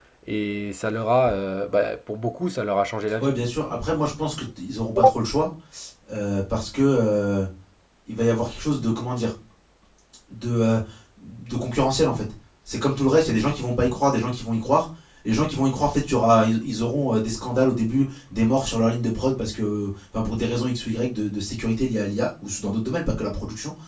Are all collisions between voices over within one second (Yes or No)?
Yes